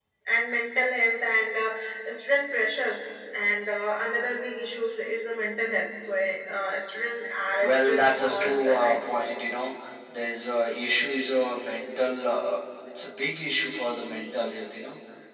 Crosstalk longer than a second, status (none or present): present